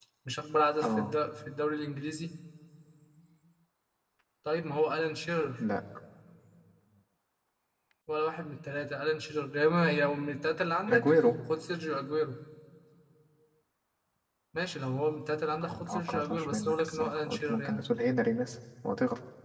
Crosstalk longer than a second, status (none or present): present